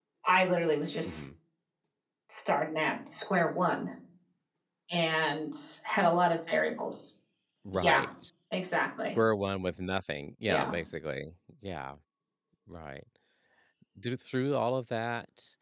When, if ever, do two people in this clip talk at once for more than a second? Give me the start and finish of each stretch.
none

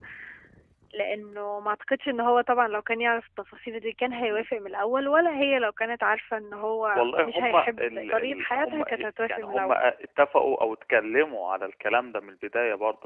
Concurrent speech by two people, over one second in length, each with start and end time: 7.0-9.8

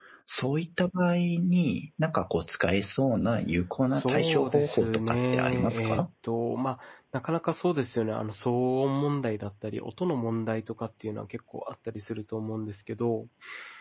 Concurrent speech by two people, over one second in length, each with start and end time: 4.0-6.0

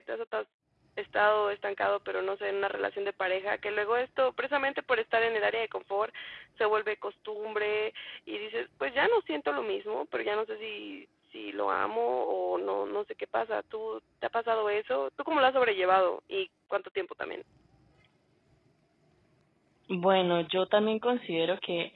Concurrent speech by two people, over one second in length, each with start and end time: none

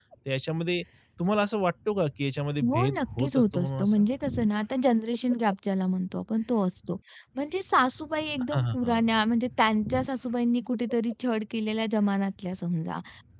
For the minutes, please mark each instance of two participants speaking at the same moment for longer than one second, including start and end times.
2.7-4.0

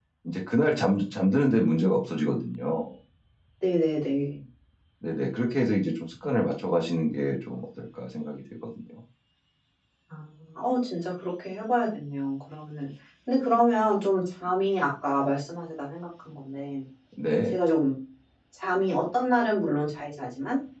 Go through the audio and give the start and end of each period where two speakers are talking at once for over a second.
none

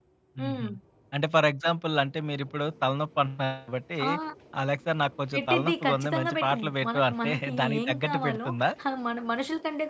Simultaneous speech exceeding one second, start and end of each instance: 5.3-8.5

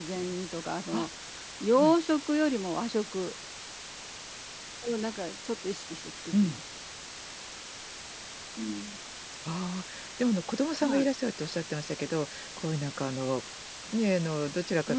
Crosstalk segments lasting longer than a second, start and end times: none

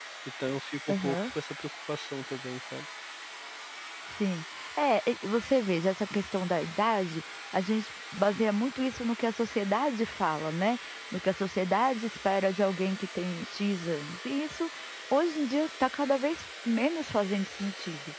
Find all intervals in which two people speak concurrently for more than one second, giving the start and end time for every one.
none

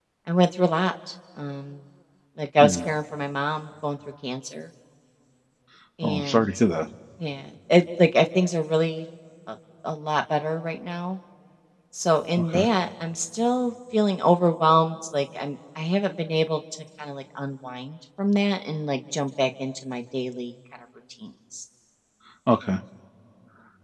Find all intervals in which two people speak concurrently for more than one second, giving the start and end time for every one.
none

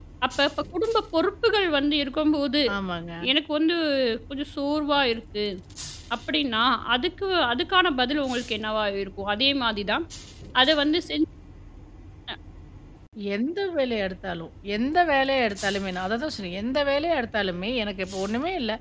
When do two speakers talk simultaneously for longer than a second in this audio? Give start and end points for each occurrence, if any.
none

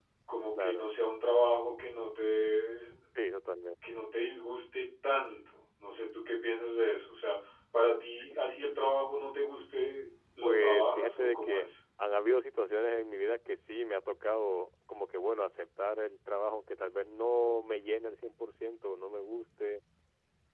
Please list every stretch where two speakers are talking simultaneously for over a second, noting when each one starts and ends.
10.4-11.7

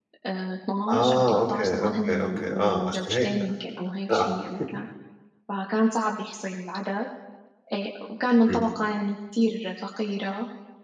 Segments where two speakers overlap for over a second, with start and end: 0.9-3.3

